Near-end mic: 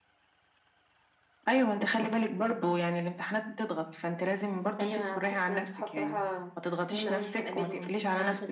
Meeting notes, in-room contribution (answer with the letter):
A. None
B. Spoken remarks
A